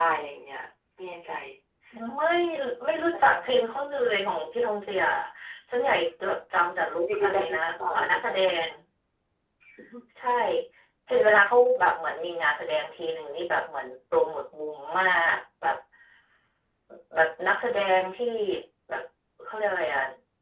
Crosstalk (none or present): present